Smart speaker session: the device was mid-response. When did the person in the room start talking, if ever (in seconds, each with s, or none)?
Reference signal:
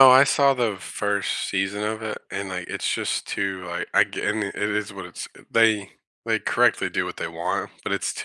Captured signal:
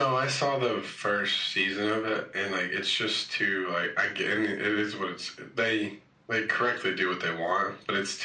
none